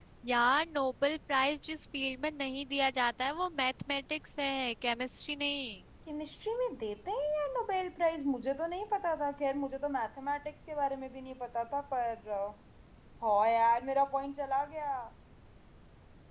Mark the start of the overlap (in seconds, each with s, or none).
none